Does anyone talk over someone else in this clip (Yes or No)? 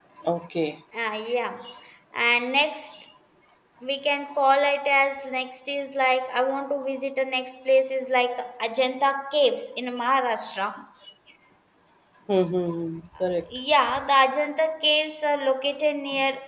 No